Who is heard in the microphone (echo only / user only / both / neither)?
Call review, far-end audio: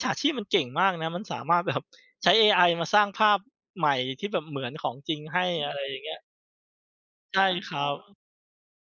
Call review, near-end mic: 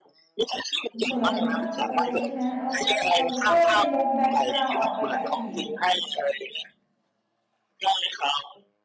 both